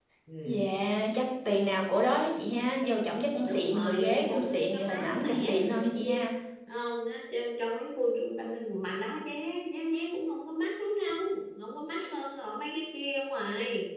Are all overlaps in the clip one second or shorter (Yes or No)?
No